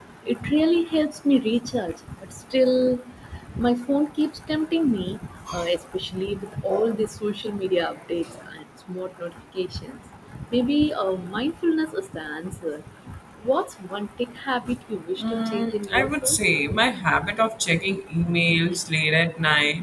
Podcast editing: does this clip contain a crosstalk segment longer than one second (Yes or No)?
Yes